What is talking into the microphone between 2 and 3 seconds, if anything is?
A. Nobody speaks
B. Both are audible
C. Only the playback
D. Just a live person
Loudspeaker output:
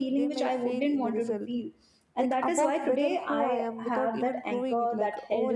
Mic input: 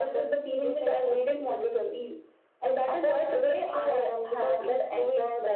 C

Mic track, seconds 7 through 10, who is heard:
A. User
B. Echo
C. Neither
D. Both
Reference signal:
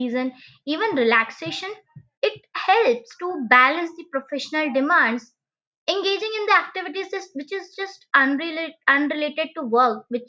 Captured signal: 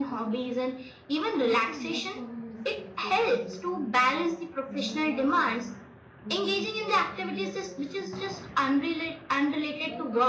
D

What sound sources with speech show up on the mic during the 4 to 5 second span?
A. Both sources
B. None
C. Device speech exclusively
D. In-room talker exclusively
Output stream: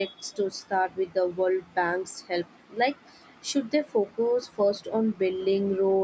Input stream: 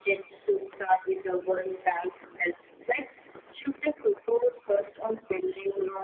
C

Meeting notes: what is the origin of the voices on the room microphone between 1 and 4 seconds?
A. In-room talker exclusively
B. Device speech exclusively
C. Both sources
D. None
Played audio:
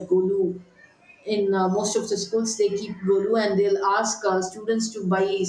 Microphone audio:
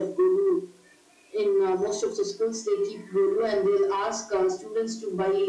B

